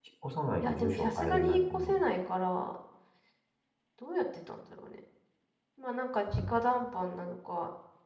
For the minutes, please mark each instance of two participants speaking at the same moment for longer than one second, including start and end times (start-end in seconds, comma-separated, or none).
0.6-2.0